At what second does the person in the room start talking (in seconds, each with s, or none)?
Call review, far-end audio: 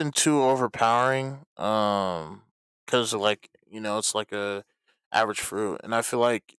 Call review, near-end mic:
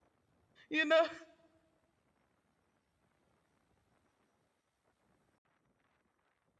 0.7 s